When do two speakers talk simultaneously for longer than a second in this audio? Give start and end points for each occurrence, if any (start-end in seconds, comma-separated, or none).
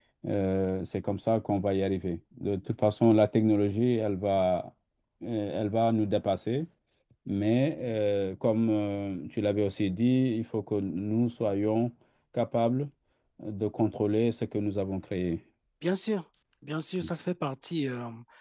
none